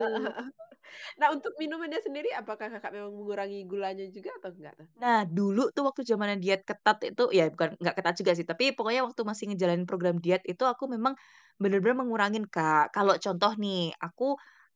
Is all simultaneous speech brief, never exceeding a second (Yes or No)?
Yes